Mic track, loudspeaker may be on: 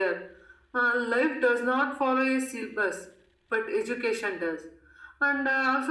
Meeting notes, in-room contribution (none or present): none